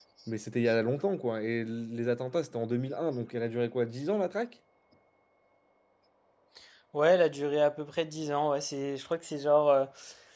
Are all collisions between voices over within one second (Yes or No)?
Yes